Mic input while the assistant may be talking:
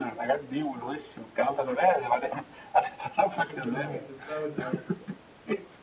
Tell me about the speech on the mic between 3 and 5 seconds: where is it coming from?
both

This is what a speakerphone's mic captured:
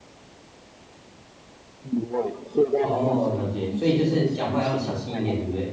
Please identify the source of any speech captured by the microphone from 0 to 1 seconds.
neither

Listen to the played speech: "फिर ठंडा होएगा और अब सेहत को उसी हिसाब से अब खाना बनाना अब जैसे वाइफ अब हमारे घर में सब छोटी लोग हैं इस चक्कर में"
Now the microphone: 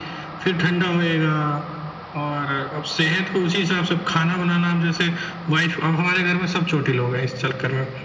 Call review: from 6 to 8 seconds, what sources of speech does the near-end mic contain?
echo only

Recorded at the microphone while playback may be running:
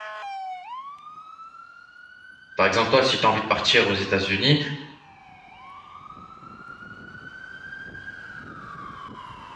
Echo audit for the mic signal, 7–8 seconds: neither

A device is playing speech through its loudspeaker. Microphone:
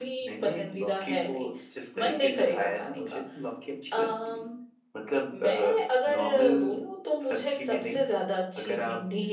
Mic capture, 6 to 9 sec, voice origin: both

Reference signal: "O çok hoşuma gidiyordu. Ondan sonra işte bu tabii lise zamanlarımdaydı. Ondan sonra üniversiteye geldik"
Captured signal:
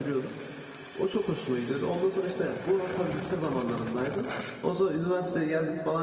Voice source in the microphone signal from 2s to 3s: echo only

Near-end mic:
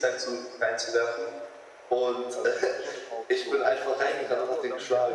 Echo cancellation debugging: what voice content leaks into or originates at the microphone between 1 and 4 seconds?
both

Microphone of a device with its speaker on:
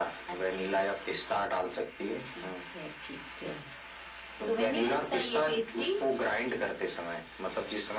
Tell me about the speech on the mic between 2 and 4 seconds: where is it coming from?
echo only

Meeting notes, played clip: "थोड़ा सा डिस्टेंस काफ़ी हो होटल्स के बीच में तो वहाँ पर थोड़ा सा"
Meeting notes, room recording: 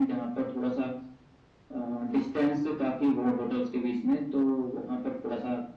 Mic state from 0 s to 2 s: echo only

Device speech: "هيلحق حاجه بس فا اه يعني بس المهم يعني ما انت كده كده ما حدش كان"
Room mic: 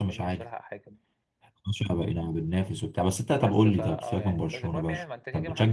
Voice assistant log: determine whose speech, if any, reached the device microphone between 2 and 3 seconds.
user only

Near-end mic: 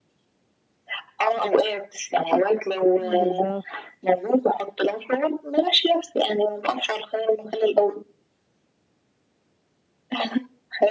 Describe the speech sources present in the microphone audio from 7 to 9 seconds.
echo only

